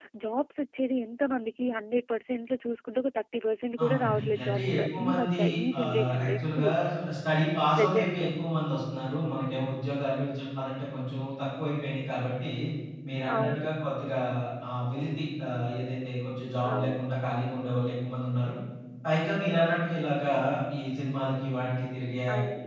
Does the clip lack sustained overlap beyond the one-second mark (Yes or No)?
No